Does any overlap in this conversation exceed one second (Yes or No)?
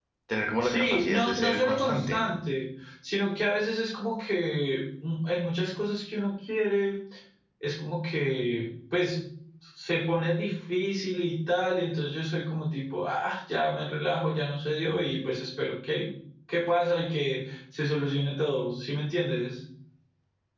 Yes